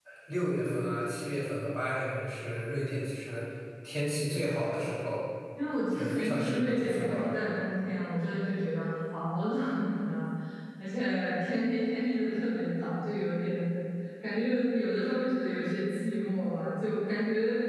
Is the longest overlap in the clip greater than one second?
Yes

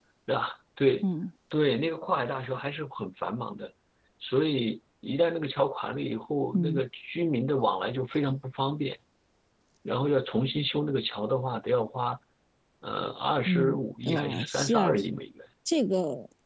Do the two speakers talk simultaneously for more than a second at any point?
Yes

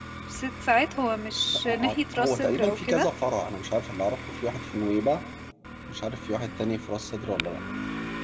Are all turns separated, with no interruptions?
No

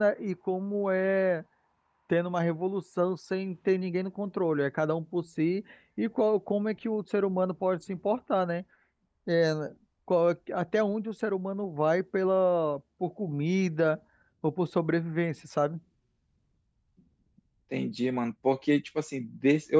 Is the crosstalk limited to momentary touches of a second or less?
Yes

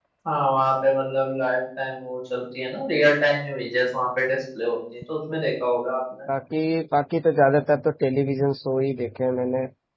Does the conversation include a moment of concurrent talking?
No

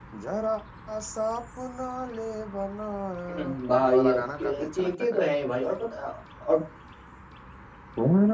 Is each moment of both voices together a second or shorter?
No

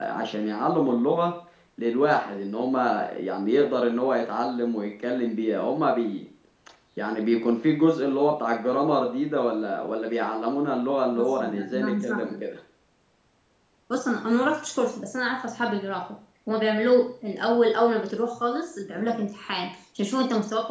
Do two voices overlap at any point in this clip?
Yes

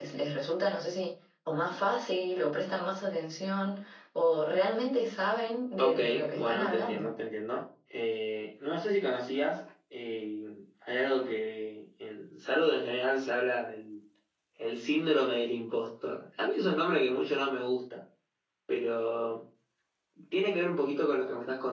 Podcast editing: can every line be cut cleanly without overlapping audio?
No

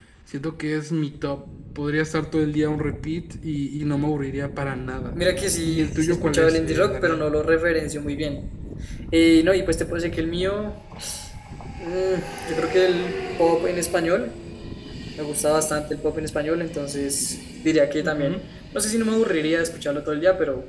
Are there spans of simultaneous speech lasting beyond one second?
Yes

